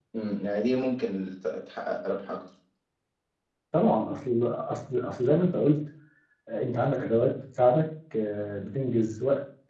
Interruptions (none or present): none